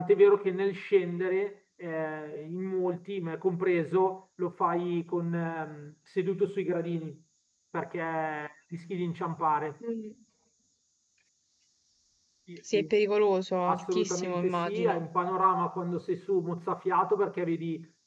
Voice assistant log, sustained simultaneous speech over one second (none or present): present